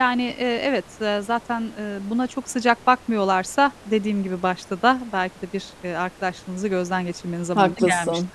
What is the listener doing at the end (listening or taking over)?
taking over